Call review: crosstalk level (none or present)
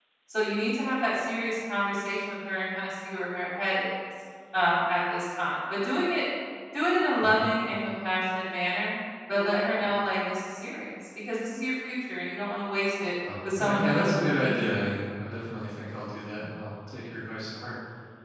present